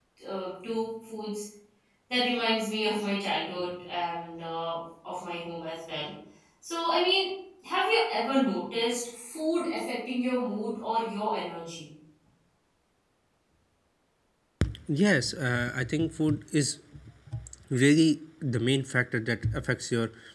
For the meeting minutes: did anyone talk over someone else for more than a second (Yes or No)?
No